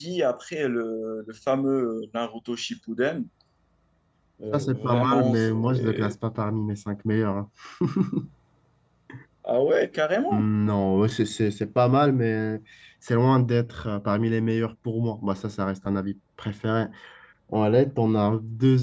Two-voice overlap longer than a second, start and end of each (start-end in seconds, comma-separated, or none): 4.5-6.1